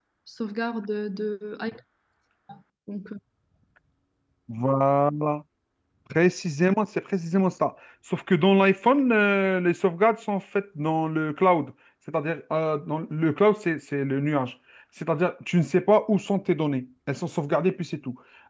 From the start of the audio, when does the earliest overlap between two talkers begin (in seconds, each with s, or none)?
none